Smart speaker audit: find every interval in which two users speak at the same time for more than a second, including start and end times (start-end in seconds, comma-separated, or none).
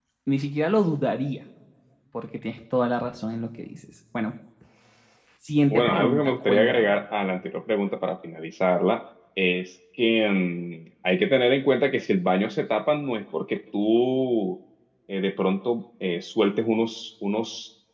5.7-6.9